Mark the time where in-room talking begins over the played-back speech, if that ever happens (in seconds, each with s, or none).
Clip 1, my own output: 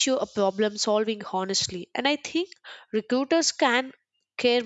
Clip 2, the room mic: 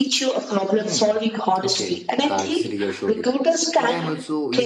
0.8 s